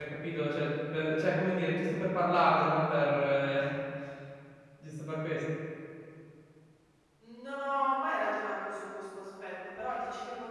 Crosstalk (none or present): none